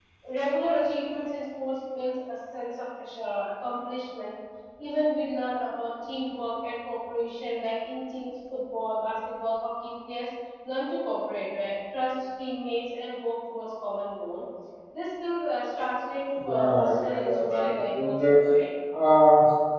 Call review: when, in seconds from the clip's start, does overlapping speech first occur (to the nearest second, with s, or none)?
16 s